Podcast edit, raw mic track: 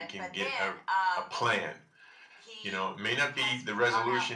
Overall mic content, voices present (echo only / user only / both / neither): echo only